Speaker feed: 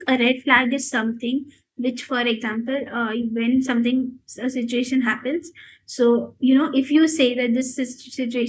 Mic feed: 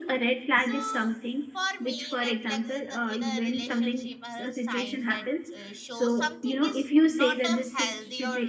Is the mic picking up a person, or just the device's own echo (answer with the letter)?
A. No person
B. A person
B